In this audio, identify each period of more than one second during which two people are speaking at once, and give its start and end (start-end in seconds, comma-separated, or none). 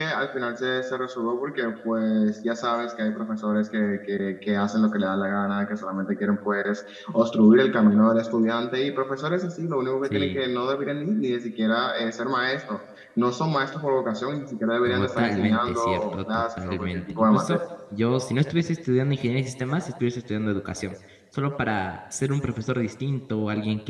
14.9-17.6